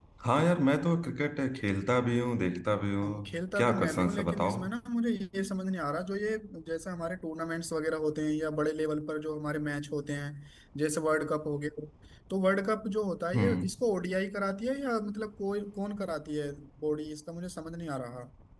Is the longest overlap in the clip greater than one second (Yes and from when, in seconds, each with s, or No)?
Yes, from 3.0 s